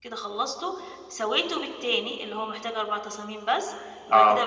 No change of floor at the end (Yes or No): Yes